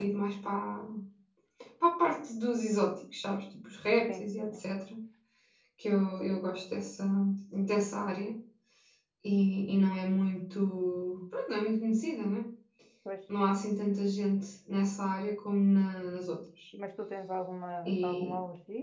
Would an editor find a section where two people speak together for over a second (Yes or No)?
No